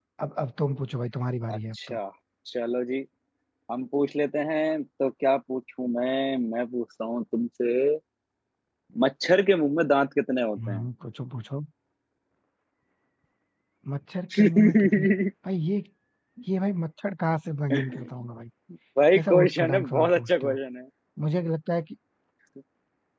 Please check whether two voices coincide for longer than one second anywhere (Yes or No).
Yes